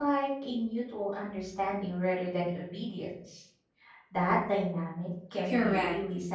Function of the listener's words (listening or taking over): taking over